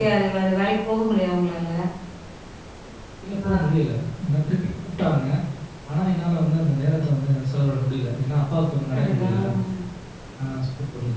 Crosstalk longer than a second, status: none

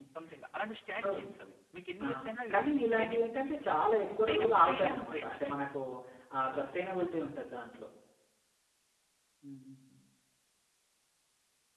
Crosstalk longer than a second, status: present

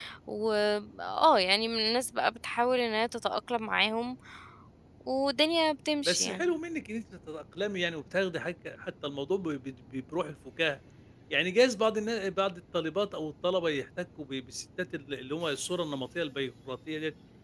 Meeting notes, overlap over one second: none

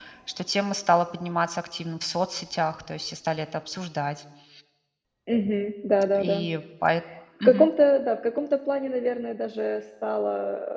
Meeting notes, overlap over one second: none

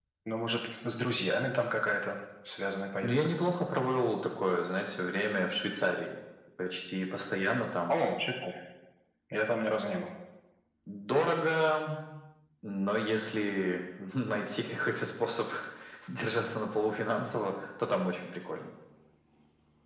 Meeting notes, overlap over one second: none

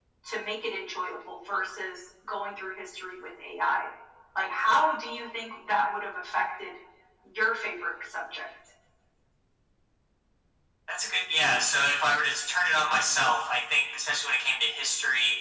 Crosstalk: none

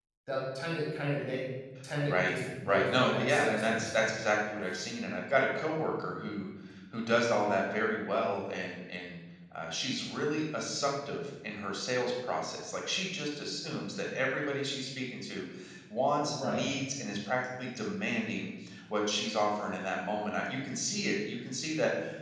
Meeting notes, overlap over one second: present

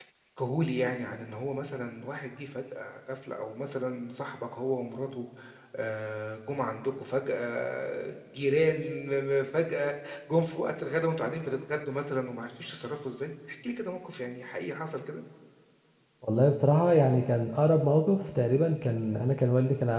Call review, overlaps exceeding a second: none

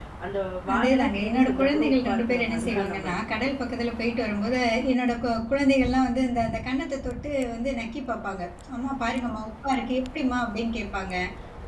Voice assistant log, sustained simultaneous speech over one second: present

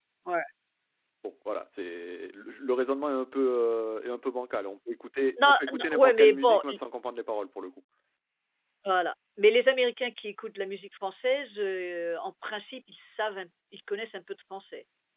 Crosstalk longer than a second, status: present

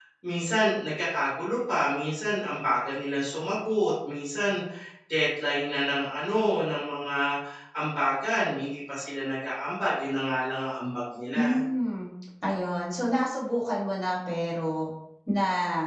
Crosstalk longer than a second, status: none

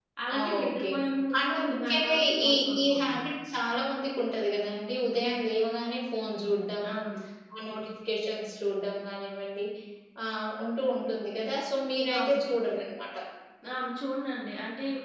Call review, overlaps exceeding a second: present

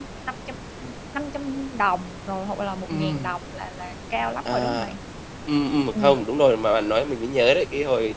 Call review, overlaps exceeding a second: none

